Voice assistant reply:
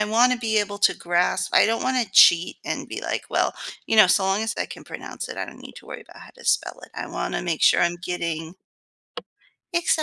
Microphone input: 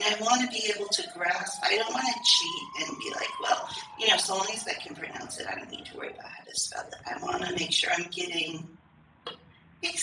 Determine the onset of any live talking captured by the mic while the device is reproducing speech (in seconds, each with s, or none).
none